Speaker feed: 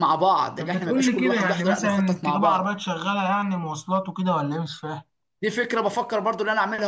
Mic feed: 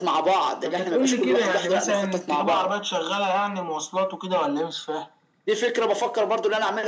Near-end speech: none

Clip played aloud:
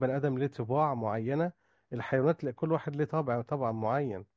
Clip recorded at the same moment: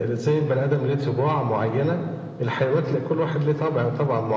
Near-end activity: none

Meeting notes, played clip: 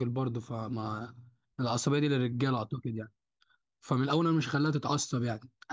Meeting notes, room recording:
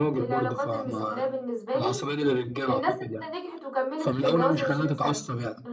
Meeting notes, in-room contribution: present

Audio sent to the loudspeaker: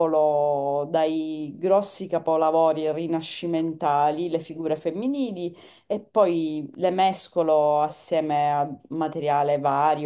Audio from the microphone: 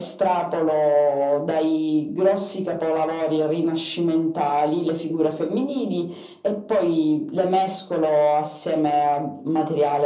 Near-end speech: none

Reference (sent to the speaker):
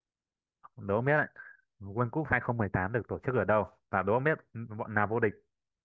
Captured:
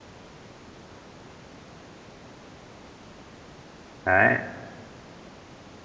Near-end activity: present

